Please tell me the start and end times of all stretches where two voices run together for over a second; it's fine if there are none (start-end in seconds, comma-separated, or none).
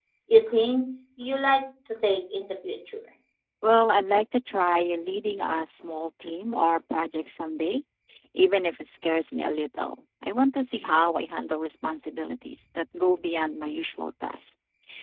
none